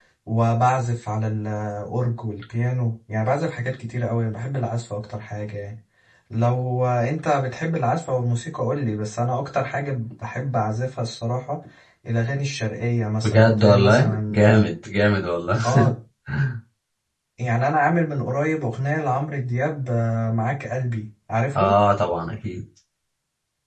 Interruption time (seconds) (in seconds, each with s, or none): 13.2 s